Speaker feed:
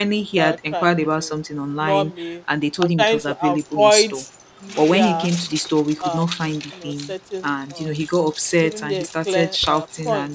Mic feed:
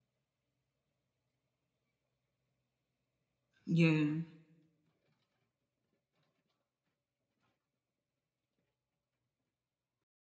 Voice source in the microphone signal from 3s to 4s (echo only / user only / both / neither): user only